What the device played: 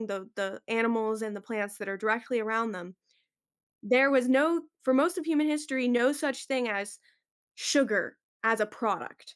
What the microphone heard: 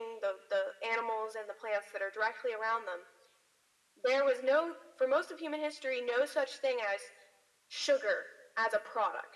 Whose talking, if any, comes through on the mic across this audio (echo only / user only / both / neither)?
echo only